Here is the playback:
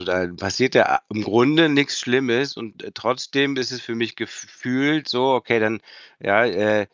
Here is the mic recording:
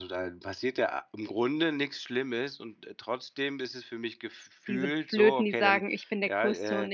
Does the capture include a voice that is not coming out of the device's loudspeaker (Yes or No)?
Yes